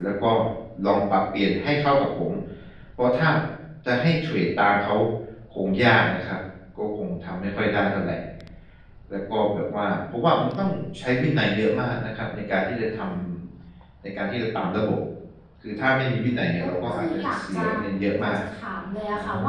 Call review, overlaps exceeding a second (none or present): present